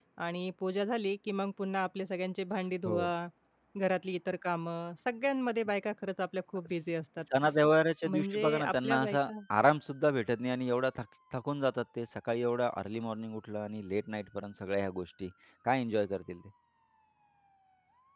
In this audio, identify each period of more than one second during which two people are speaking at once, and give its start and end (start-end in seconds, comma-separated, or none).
8.0-9.3